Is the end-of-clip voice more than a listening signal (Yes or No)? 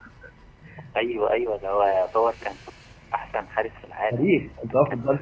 Yes